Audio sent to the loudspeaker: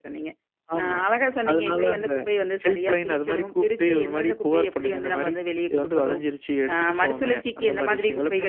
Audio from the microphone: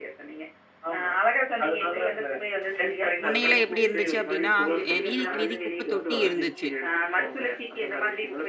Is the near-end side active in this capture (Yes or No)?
Yes